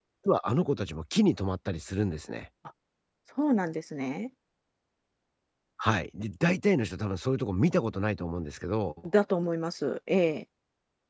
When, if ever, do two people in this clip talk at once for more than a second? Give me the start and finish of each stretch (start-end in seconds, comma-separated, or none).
none